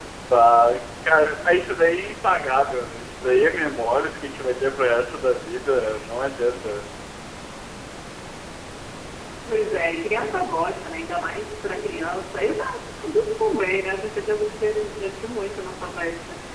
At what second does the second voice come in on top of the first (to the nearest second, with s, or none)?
none